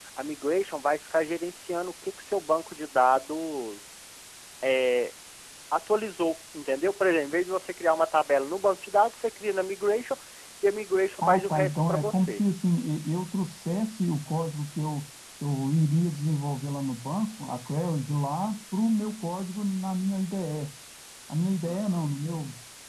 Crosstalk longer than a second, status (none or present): present